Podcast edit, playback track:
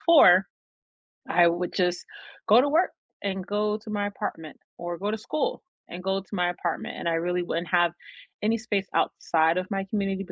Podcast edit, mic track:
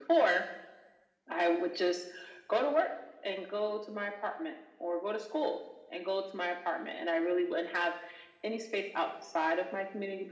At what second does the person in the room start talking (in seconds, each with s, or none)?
none